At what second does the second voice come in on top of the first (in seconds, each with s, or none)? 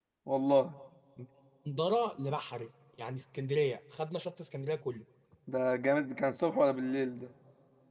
none